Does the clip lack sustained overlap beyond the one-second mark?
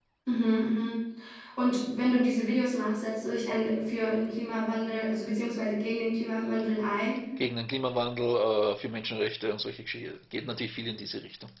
Yes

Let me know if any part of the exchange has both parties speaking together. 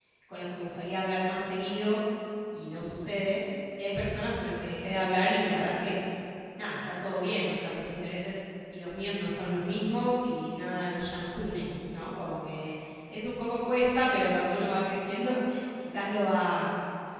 No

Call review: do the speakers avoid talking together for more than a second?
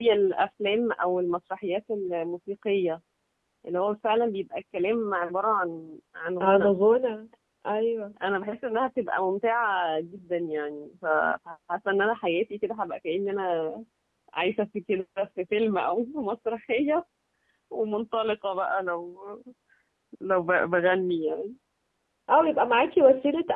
Yes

